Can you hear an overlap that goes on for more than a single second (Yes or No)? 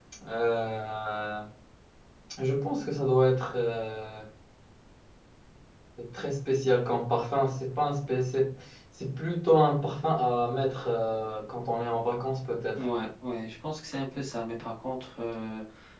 No